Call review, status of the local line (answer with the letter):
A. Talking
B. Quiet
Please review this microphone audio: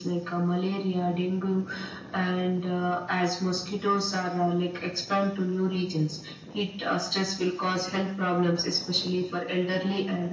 B